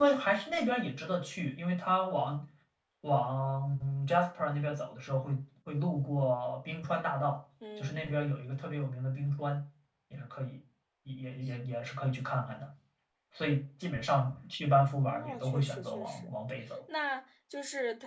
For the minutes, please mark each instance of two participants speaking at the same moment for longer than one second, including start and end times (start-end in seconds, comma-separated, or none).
15.0-16.3